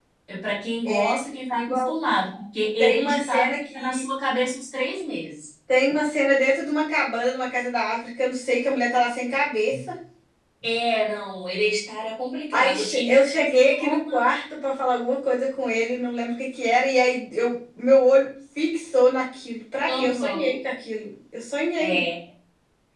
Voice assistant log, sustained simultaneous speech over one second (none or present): present